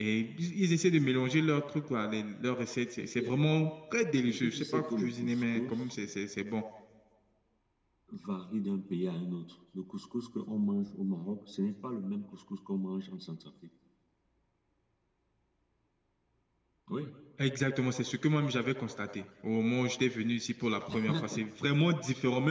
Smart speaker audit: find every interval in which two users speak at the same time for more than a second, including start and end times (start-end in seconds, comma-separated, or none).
4.3-5.9